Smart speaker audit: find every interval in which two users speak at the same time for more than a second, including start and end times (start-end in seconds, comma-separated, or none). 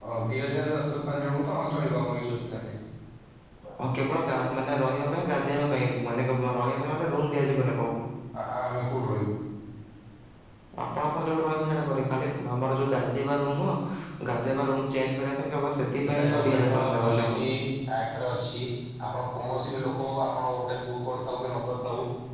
16.0-17.4